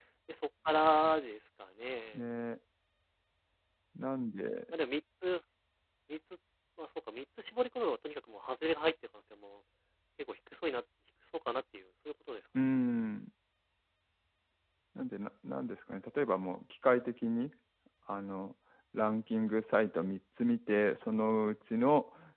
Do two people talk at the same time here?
No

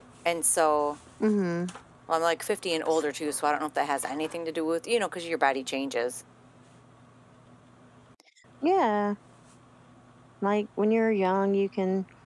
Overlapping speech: No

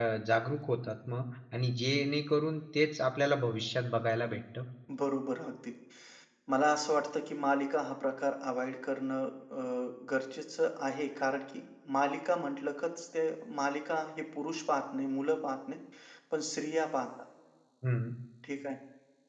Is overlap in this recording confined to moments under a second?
Yes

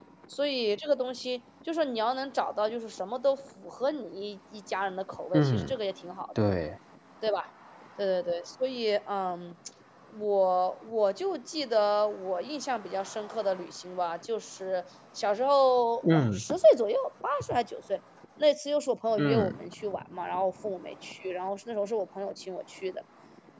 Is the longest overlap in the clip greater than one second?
No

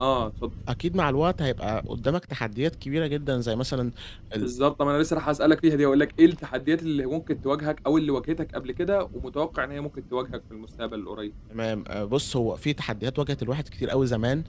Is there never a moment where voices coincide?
Yes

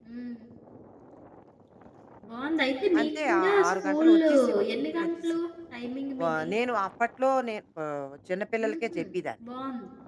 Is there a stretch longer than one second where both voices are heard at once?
Yes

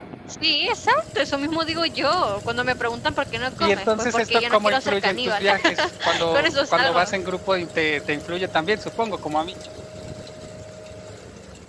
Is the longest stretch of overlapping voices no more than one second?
No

